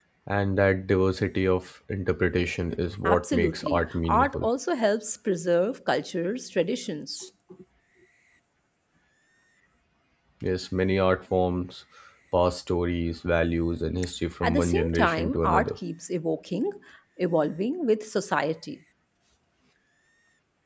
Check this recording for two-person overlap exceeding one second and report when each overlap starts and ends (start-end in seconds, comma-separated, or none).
3.0-4.5, 14.4-15.7